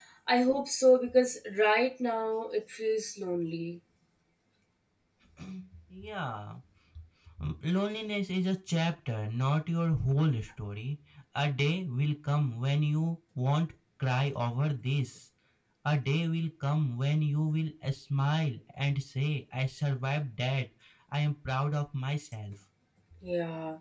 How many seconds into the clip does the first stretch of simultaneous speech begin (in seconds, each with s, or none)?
none